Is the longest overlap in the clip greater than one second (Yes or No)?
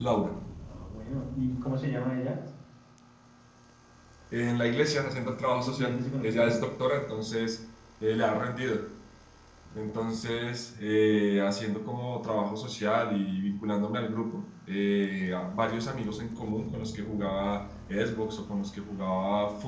Yes